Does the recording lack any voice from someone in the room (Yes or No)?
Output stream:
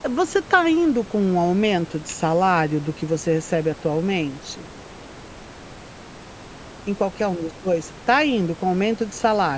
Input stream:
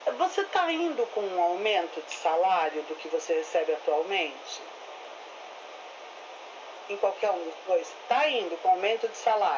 Yes